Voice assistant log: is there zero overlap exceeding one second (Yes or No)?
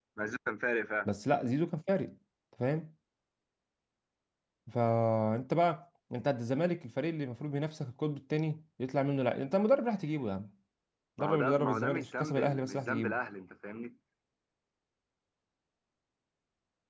No